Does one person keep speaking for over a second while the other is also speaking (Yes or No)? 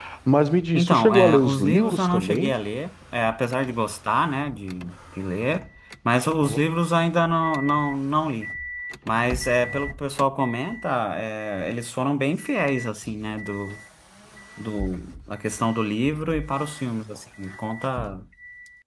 Yes